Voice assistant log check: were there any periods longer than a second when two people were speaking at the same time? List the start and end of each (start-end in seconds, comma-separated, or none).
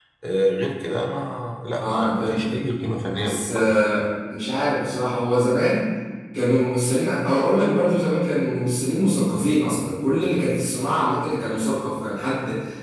1.8-3.8